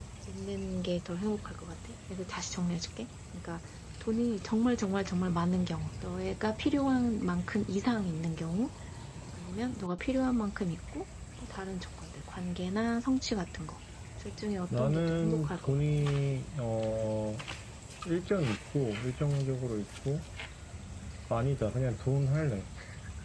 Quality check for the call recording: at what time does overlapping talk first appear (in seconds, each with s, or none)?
14.8 s